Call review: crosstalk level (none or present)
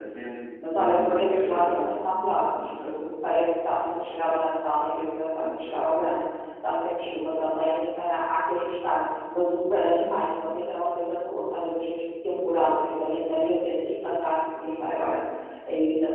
present